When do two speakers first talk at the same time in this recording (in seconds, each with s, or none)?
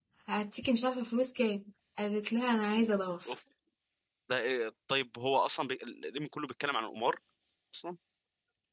none